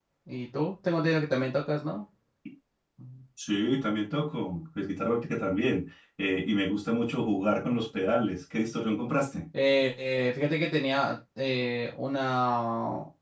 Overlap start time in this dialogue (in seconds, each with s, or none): none